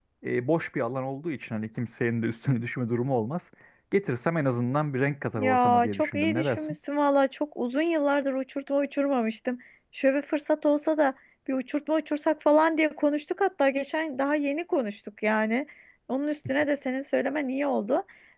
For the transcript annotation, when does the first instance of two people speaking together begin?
5.3 s

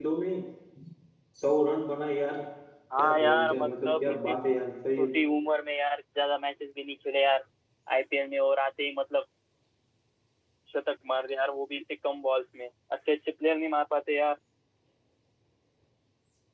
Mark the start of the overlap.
3.0 s

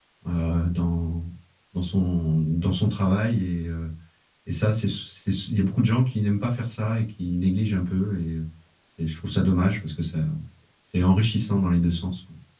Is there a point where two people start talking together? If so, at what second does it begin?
none

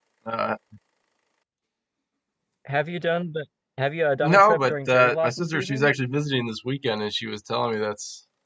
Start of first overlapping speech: 4.2 s

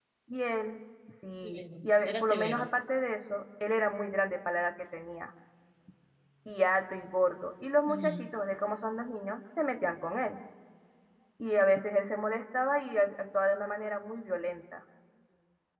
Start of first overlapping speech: 1.4 s

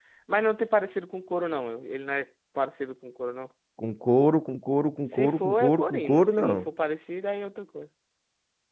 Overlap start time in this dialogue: 5.1 s

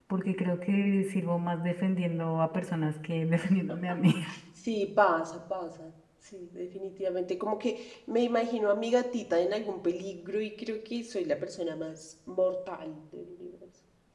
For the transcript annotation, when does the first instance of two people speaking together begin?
none

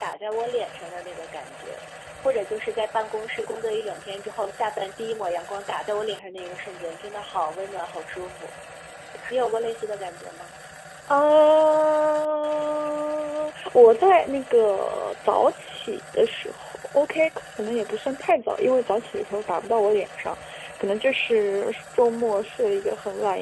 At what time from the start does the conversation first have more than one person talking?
none

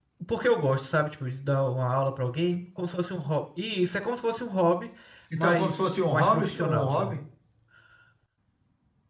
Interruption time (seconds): 5.4 s

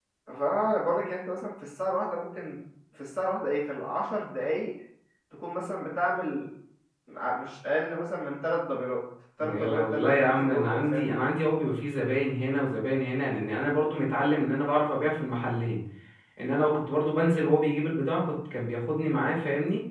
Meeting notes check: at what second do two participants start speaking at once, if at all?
9.4 s

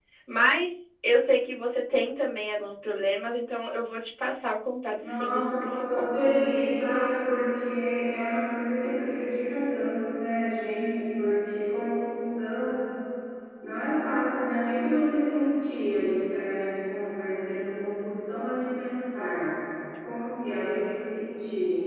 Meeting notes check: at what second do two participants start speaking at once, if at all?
5.0 s

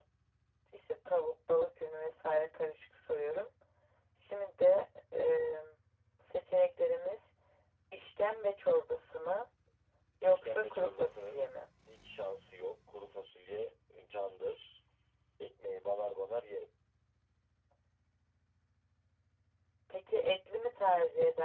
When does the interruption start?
10.2 s

